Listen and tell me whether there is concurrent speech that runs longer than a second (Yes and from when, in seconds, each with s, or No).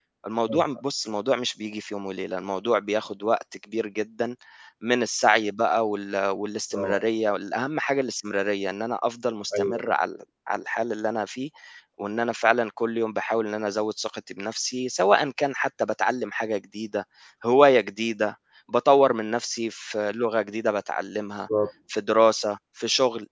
No